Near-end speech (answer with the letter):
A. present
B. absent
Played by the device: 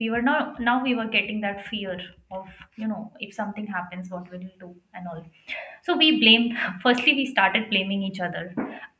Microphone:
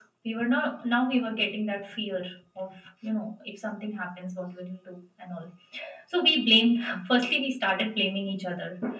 B